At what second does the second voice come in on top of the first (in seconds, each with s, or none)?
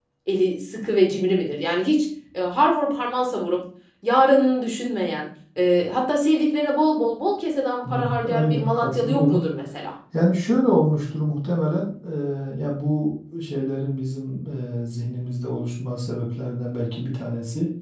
7.8 s